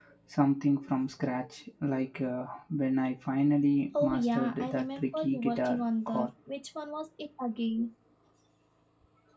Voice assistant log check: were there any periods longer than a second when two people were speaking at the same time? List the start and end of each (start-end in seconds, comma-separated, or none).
4.0-6.3